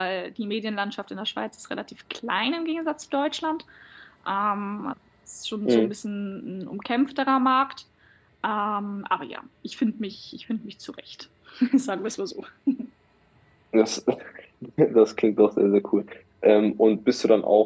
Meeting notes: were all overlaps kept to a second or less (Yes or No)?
Yes